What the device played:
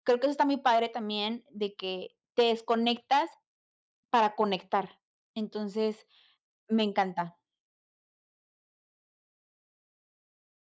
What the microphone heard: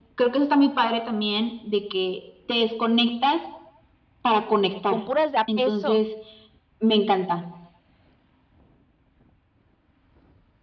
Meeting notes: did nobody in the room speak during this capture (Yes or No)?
No